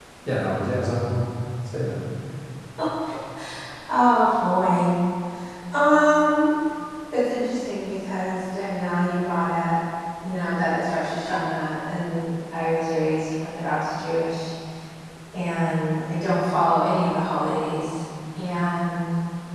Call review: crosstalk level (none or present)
none